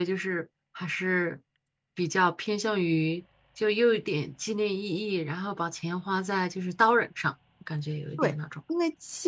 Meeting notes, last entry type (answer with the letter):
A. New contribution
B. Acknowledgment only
A